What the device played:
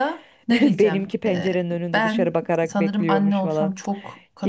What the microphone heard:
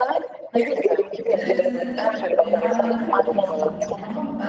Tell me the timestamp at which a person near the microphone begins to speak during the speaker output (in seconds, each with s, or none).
1.2 s